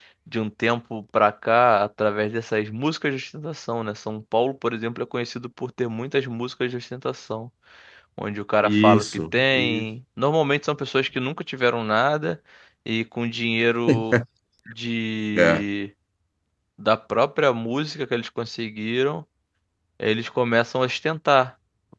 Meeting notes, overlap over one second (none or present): present